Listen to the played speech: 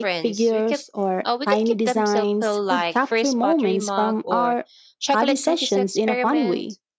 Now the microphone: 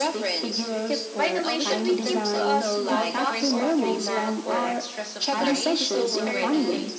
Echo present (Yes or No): Yes